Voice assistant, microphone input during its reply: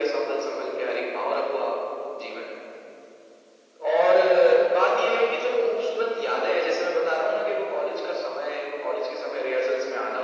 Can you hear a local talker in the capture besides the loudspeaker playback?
No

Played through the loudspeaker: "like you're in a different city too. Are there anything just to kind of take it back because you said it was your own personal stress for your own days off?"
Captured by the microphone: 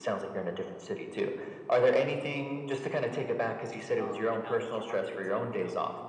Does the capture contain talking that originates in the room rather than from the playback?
Yes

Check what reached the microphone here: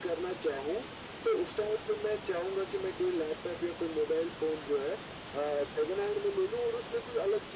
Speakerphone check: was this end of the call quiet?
Yes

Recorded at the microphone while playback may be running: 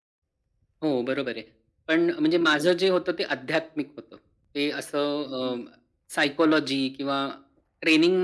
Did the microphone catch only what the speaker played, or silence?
Yes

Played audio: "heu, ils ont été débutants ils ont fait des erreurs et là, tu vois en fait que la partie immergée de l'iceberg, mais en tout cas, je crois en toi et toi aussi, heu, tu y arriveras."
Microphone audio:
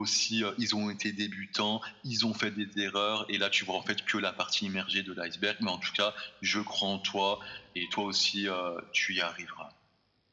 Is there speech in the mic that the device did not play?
No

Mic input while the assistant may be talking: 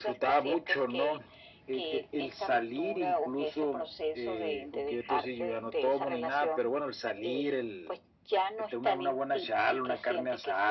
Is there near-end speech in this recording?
No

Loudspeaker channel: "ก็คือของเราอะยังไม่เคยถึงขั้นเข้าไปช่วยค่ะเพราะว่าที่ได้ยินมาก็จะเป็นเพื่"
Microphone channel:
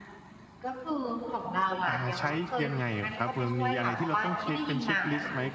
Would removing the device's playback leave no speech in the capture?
No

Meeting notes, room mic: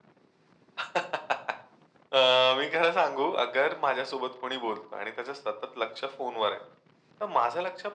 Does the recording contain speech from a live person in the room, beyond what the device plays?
No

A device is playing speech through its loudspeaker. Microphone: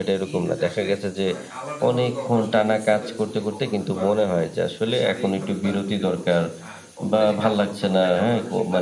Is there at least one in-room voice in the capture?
Yes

